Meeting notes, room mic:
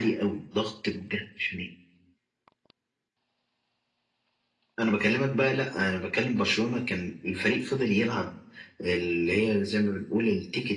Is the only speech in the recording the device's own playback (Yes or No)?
Yes